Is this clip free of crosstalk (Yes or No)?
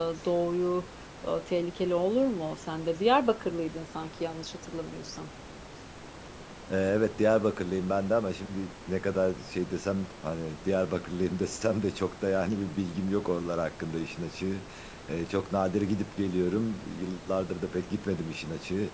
Yes